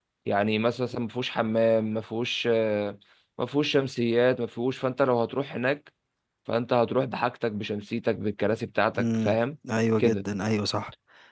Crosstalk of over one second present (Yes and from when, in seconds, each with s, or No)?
No